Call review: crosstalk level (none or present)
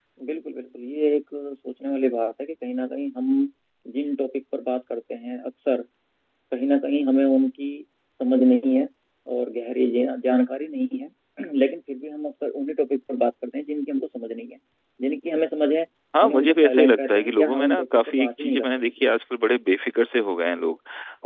present